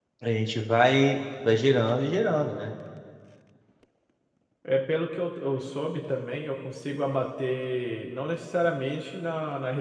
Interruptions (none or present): none